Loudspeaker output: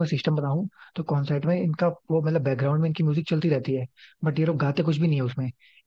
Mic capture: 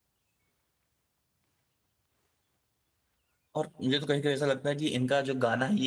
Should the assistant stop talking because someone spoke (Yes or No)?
Yes